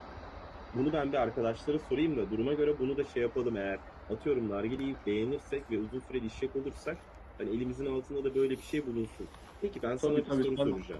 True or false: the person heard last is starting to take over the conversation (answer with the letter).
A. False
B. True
B